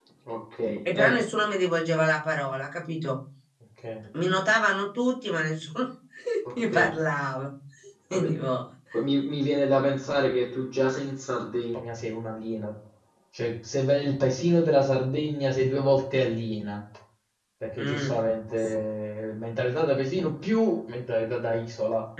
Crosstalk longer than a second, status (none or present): none